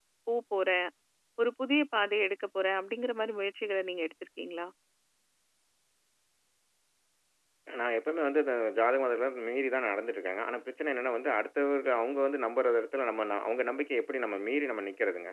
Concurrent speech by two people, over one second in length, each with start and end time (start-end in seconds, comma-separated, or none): none